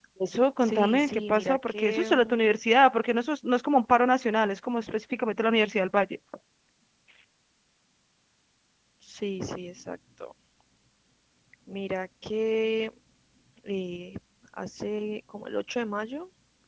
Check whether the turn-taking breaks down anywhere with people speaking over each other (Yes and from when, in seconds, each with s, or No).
Yes, from 0.6 s